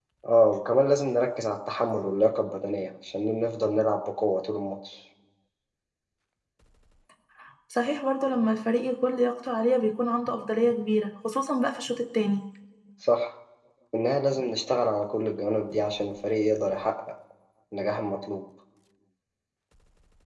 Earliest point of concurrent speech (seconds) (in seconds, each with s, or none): none